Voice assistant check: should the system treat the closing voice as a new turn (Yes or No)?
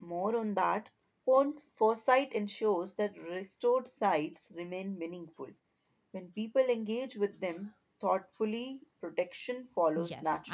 Yes